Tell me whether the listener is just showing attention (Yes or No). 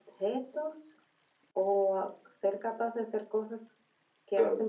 No